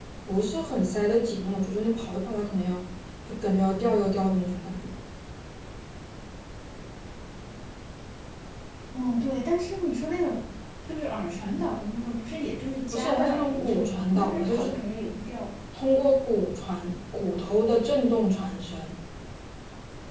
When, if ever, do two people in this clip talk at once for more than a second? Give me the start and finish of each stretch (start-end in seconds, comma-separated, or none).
12.9-14.6